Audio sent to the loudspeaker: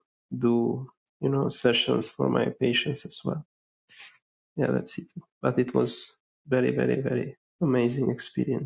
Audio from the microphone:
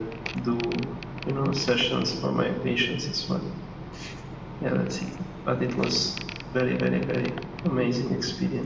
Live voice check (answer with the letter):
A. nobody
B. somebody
A